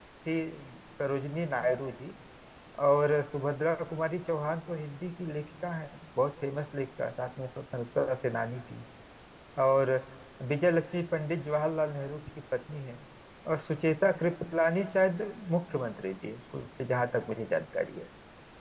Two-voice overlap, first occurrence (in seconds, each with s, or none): none